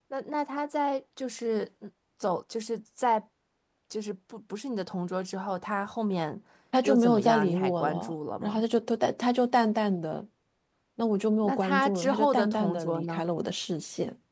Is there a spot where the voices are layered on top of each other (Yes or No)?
Yes